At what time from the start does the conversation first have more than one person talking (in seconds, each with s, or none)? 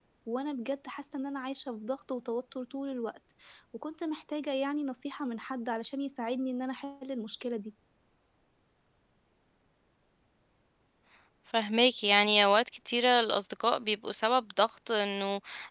none